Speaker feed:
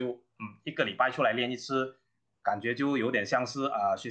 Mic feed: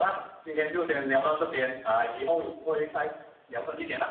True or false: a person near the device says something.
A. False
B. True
B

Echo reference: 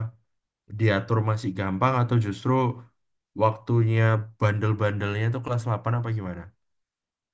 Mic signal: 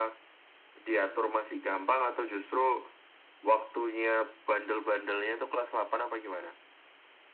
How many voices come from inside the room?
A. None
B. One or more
A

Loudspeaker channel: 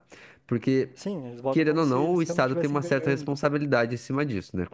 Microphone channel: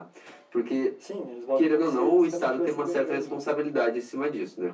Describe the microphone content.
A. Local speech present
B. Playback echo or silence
B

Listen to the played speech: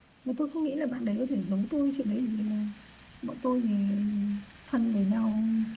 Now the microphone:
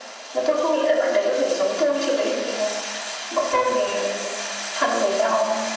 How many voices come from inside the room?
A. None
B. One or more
A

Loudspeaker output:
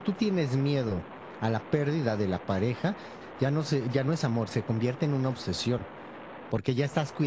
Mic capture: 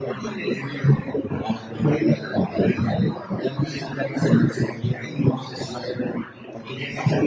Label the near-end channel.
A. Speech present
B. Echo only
B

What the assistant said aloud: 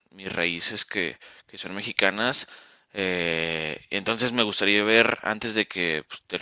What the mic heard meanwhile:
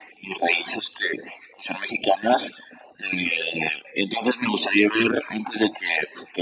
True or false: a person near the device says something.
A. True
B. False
B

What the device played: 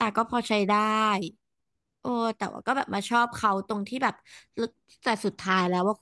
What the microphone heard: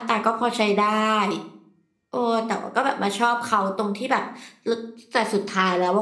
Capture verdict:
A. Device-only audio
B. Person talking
A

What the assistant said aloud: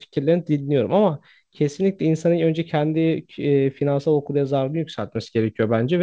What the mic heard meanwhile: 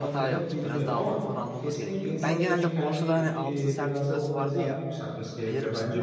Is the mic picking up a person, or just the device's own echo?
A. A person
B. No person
A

